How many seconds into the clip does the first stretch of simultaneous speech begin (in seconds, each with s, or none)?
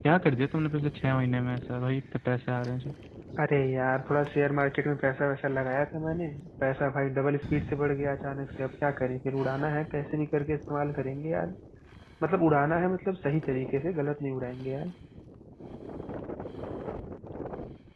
none